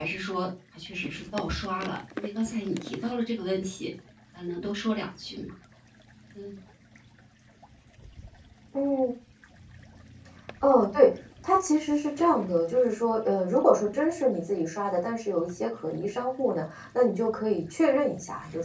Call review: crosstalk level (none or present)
none